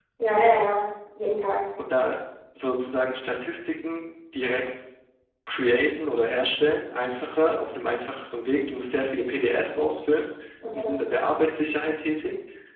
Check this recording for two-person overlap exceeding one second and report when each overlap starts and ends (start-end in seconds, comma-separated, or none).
none